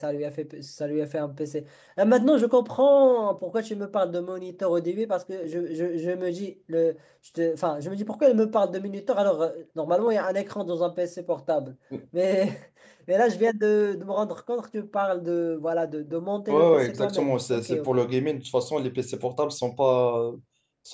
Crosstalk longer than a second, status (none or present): present